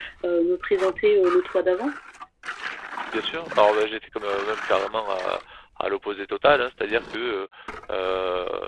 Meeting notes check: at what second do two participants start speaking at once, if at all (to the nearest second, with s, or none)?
none